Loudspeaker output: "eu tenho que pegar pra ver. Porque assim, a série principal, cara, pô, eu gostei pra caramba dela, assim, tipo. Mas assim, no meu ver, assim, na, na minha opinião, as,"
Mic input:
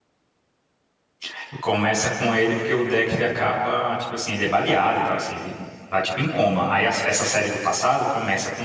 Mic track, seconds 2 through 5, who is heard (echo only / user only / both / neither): user only